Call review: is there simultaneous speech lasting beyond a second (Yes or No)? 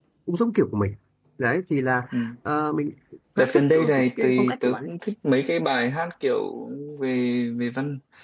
Yes